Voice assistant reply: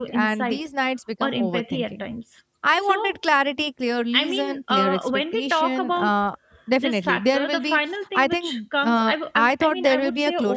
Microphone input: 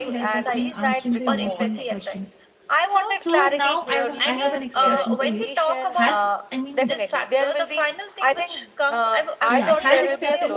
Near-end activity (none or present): present